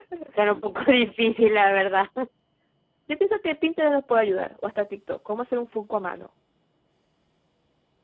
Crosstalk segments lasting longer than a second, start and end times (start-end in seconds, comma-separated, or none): none